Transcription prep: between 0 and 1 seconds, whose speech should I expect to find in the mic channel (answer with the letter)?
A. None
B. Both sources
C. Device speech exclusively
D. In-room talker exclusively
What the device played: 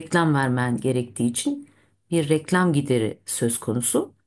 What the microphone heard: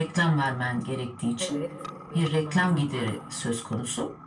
C